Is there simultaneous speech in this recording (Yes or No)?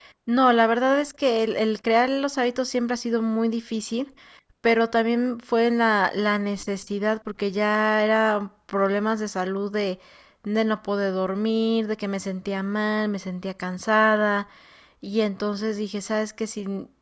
No